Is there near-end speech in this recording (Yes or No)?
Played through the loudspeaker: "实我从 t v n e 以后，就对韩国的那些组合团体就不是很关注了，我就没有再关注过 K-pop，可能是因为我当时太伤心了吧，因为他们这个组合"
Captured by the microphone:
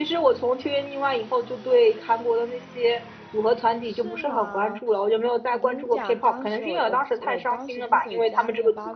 Yes